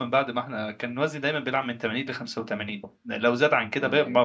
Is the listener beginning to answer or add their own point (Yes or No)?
No